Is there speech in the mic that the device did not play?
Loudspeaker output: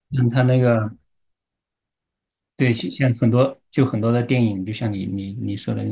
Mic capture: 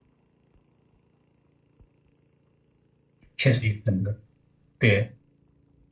Yes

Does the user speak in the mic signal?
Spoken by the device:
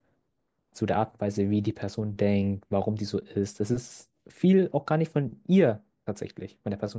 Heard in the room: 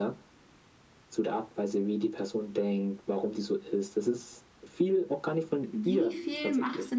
Yes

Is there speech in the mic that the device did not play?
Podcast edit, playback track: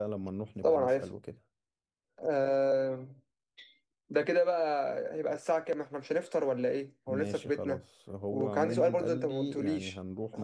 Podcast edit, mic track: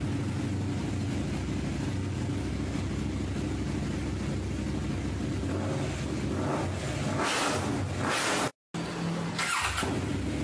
No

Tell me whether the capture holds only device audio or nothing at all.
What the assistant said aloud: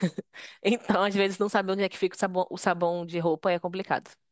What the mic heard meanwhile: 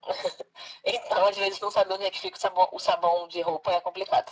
Yes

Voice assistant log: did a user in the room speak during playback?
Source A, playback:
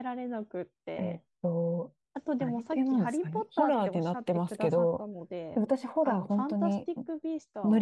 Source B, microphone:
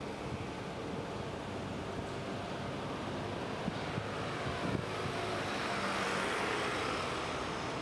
No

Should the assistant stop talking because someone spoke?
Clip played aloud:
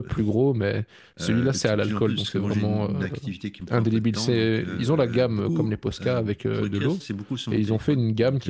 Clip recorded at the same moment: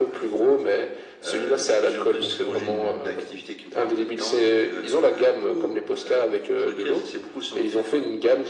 Yes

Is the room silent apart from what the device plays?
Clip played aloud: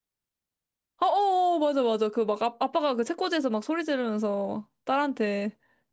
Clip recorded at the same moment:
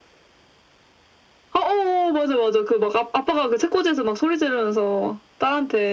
Yes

